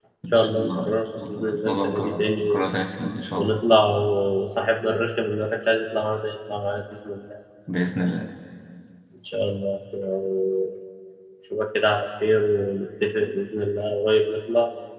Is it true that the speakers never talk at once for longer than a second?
No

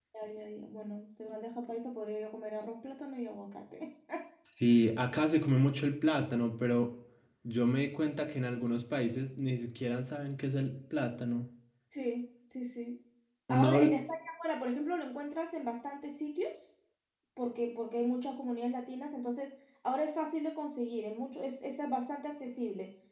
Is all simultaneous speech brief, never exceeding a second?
Yes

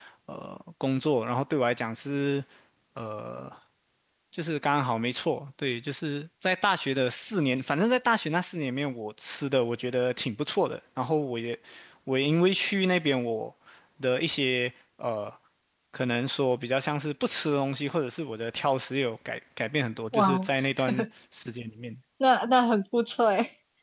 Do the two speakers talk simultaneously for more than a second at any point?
No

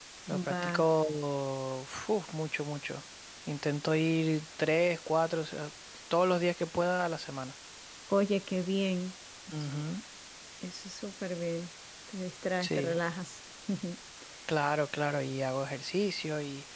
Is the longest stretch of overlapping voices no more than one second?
Yes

